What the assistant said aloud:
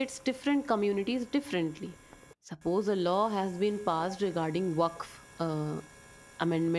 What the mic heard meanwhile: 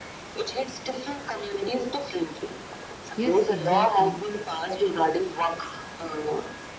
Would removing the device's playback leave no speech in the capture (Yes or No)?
No